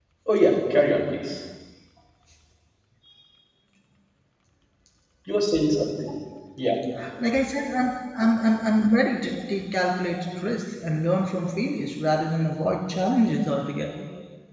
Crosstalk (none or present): none